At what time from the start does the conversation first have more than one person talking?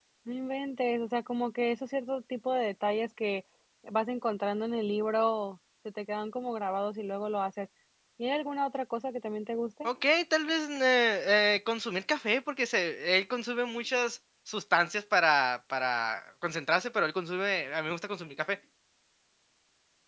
none

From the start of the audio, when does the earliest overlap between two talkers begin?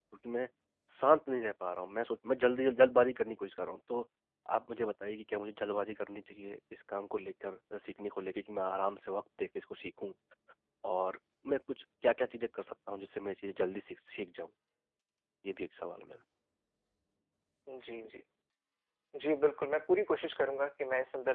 none

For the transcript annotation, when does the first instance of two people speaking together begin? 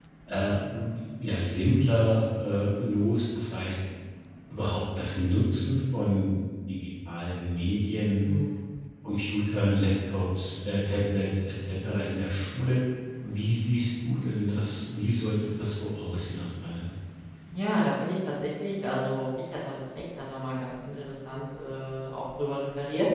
none

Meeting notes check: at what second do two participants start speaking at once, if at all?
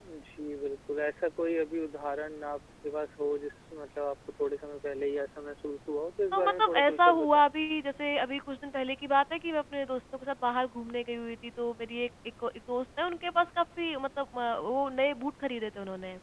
6.3 s

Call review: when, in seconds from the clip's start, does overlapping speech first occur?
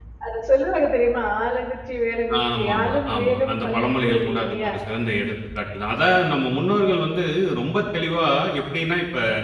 2.3 s

